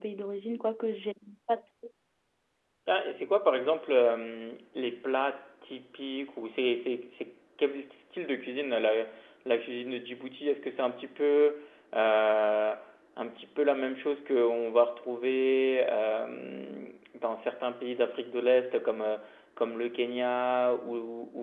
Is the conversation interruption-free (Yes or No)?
Yes